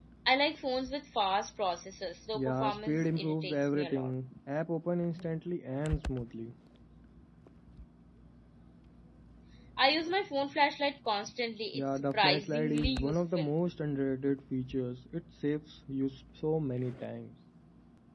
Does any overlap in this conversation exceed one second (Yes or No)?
Yes